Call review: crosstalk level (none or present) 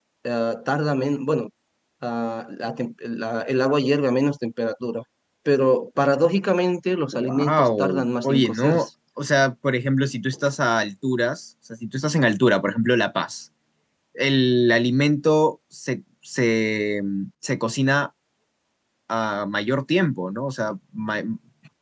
present